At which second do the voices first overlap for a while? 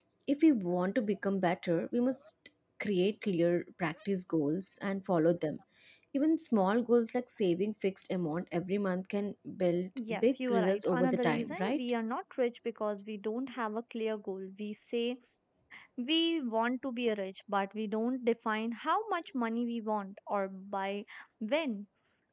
10 s

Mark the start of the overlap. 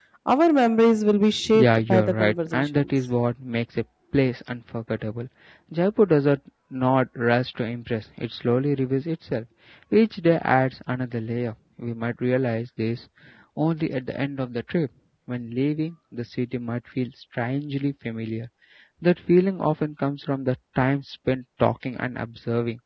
2 s

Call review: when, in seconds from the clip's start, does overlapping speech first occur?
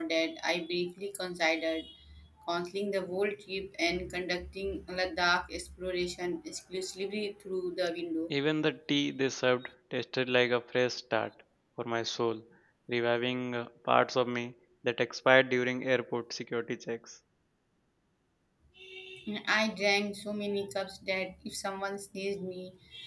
none

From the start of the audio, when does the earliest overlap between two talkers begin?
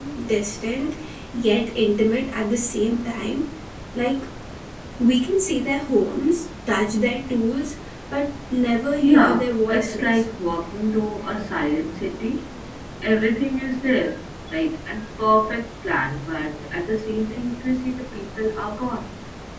9 s

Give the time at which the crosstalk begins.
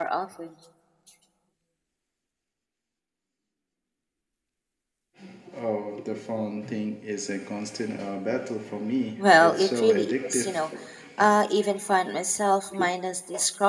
9 s

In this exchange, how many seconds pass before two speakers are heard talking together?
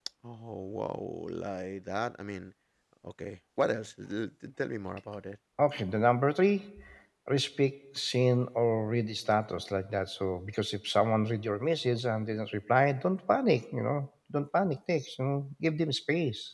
none

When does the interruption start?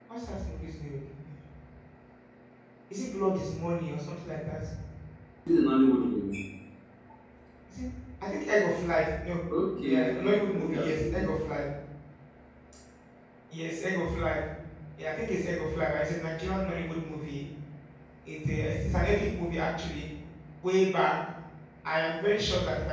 10 s

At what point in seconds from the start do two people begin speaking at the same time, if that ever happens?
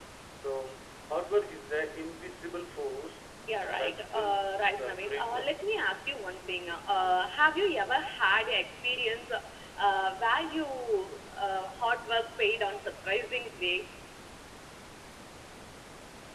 3 s

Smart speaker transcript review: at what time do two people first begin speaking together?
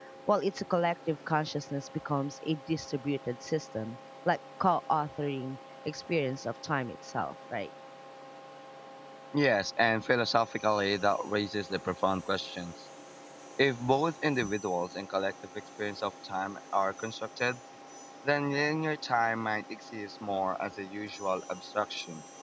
none

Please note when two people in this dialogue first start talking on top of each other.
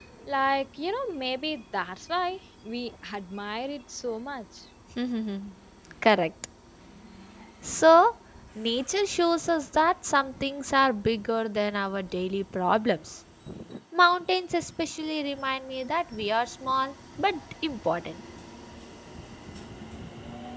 none

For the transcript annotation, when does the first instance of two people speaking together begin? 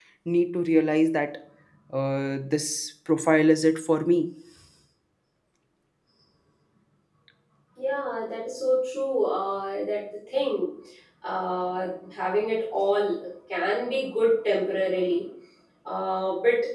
none

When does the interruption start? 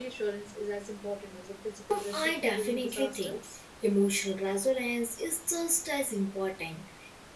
2 s

